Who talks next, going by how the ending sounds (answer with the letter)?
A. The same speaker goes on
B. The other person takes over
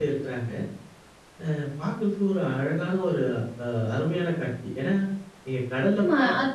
B